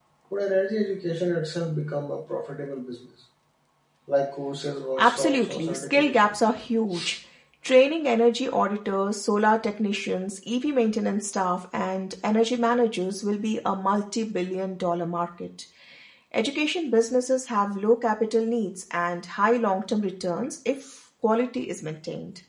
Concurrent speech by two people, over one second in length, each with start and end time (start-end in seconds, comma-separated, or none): 5.0-6.3